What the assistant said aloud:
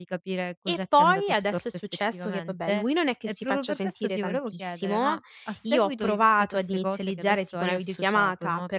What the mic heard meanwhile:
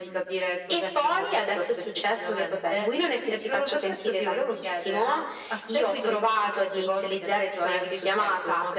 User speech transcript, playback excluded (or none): none